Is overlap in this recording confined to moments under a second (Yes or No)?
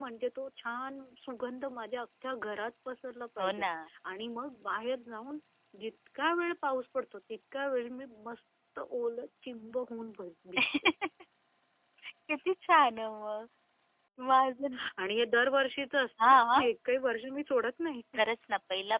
Yes